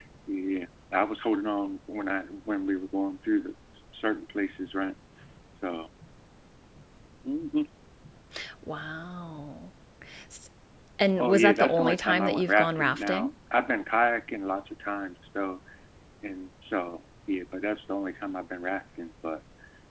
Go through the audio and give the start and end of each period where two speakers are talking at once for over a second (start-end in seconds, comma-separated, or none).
11.2-13.3